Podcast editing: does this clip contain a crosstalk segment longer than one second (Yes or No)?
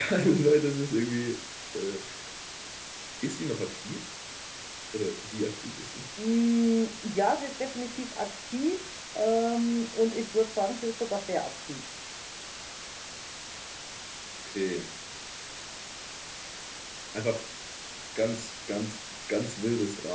No